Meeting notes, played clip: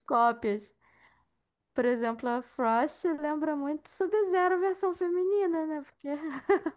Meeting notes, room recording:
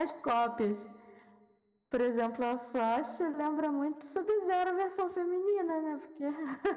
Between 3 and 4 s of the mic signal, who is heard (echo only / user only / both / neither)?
echo only